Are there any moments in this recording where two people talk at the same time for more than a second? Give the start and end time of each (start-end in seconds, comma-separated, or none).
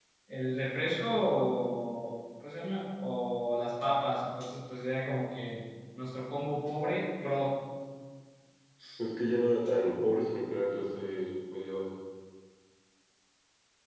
none